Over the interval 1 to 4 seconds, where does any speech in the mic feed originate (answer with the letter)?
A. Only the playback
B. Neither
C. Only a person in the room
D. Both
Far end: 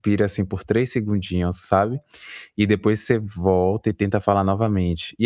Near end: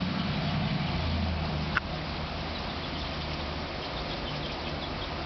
B